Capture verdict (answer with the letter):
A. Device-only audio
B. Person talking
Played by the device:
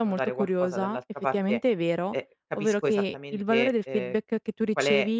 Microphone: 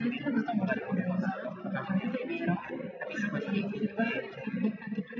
A